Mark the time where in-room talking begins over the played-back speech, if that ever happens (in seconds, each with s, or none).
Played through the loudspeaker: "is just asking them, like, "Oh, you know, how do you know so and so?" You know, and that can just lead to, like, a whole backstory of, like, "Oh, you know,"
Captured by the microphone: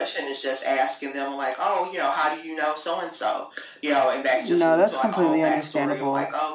4.3 s